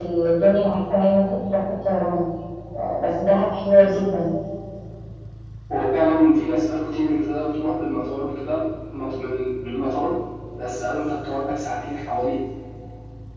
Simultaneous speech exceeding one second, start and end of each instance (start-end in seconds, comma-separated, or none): none